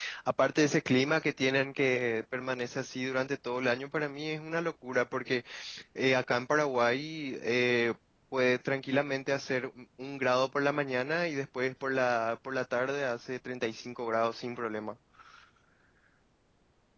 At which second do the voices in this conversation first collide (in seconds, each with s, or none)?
none